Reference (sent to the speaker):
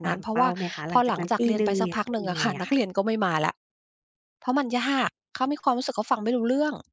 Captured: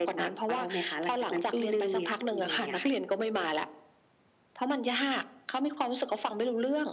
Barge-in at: none

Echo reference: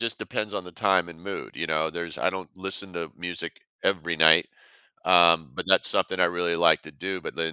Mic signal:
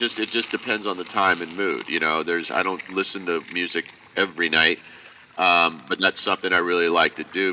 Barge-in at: none

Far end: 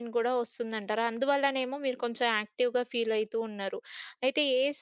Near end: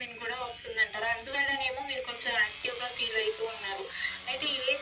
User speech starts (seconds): none

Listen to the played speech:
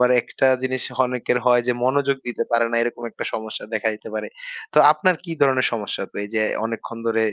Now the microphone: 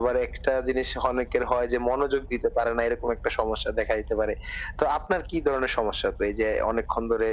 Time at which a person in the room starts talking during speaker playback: none

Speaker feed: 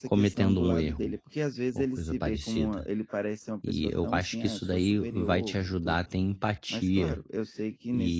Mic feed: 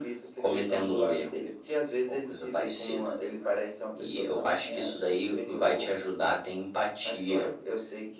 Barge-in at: none

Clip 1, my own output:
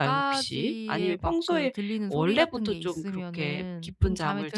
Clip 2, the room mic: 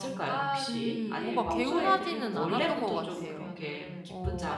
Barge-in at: 0.7 s

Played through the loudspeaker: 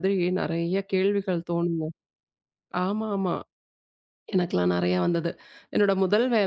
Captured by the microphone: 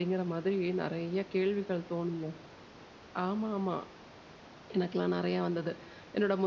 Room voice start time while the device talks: none

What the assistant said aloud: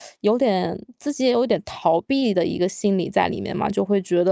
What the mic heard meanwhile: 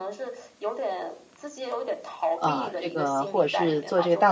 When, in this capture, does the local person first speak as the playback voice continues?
2.4 s

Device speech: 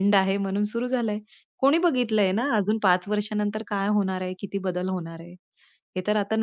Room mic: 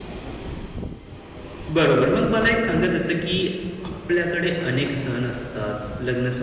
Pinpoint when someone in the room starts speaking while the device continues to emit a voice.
1.7 s

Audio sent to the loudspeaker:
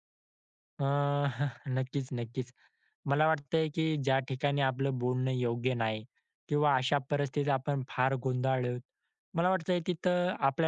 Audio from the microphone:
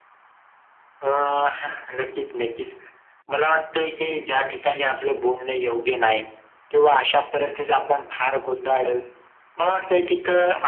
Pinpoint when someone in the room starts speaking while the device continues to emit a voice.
none

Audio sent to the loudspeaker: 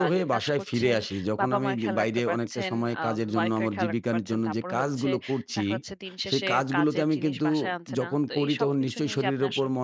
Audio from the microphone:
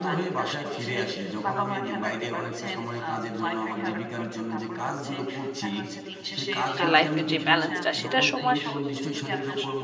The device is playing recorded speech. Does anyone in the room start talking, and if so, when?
6.7 s

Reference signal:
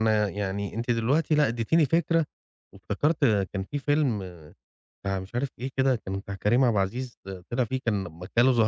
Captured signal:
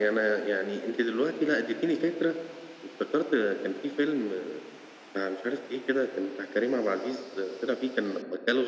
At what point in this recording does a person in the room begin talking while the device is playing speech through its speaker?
none

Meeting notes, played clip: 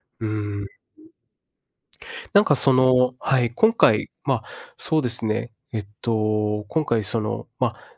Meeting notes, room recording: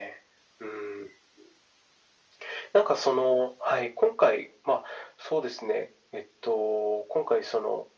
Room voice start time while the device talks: none

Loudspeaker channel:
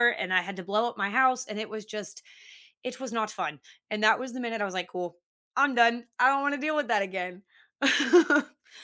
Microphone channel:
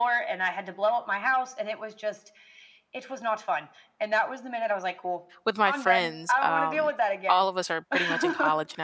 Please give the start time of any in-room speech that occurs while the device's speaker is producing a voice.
5.4 s

